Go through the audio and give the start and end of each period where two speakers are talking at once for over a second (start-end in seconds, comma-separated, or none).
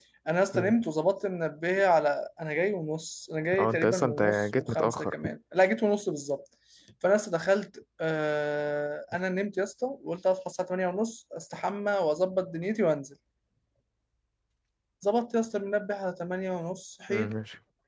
3.6-5.3